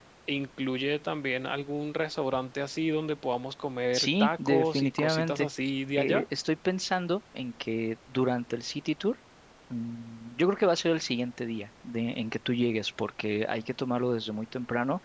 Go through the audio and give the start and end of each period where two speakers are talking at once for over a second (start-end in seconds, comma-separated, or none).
3.9-5.5